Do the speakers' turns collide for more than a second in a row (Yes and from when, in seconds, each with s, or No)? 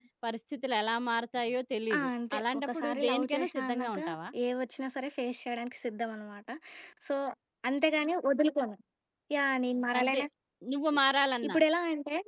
Yes, from 1.9 s